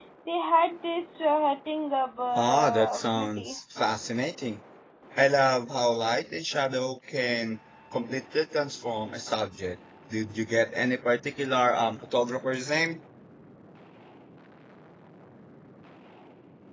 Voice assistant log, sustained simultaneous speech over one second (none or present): present